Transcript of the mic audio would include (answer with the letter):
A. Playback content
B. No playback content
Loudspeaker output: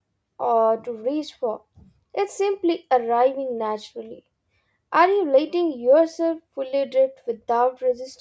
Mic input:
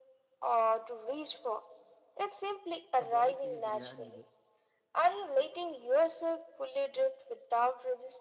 A